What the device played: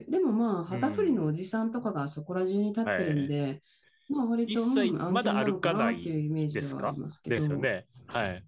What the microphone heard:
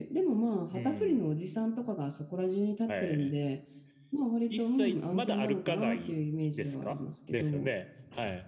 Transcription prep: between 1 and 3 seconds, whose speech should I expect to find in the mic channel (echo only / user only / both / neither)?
echo only